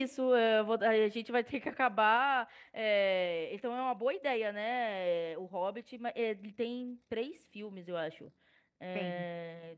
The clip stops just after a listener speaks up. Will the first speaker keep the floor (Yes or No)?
Yes